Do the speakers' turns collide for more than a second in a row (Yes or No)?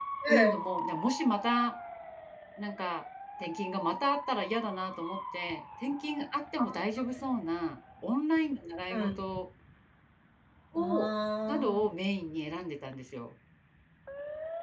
No